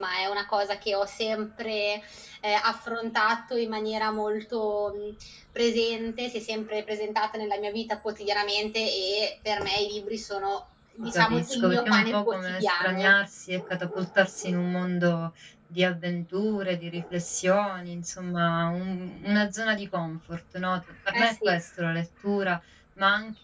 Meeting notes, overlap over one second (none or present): present